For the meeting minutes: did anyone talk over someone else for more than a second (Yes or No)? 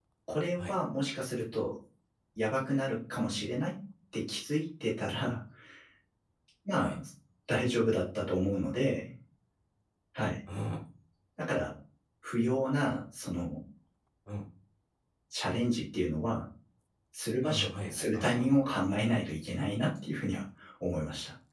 Yes